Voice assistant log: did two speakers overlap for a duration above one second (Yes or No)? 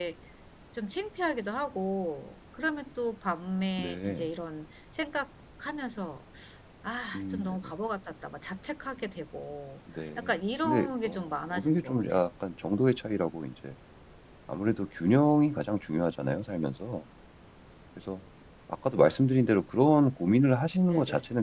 Yes